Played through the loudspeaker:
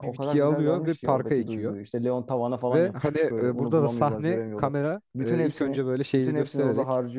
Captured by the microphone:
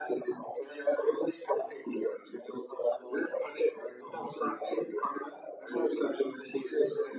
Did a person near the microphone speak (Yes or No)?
No